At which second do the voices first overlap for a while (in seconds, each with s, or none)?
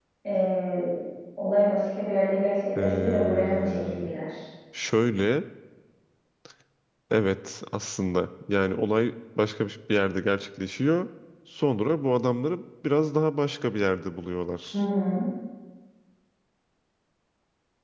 2.8 s